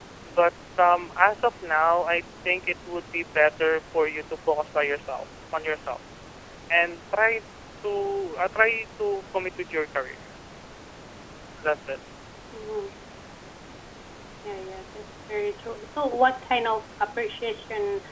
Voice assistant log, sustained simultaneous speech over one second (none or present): none